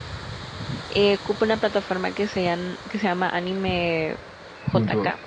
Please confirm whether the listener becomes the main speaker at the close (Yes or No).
Yes